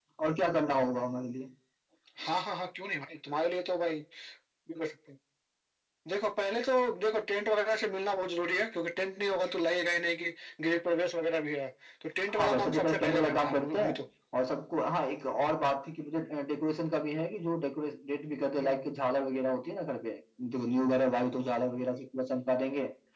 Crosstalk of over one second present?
Yes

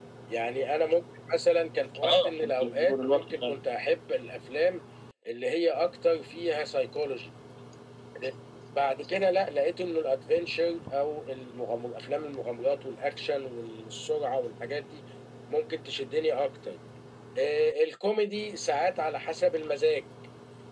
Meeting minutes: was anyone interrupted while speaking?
Yes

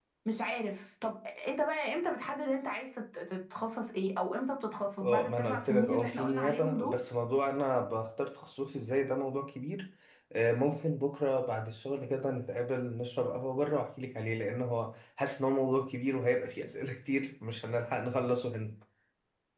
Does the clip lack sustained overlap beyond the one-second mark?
No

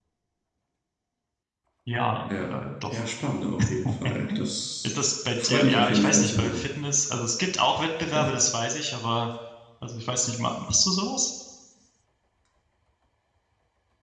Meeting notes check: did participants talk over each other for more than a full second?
Yes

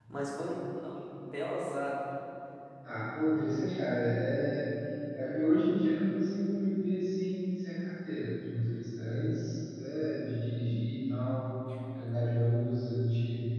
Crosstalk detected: No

